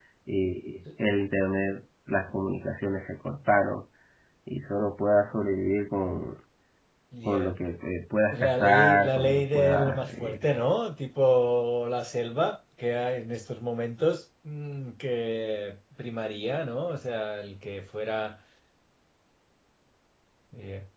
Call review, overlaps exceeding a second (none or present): present